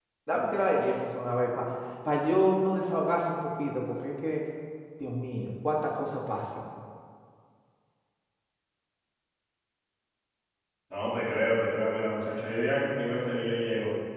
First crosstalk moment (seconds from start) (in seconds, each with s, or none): none